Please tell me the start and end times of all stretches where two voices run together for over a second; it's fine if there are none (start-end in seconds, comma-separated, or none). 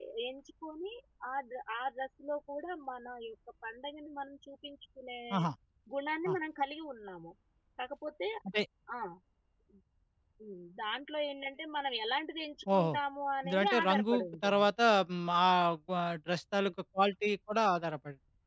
13.4-14.7